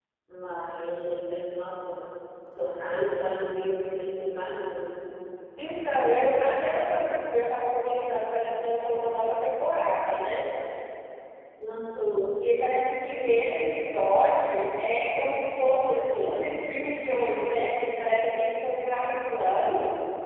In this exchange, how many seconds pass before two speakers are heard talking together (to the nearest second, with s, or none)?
none